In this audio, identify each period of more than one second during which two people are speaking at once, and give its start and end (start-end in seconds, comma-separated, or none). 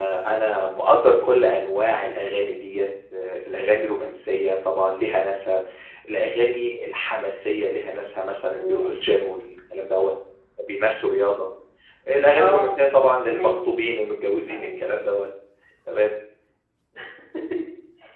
none